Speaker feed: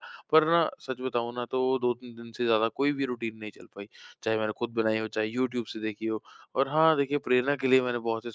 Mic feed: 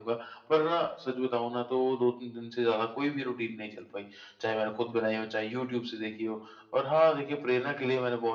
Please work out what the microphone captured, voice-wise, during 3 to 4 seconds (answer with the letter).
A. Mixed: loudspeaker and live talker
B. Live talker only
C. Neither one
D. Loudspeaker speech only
D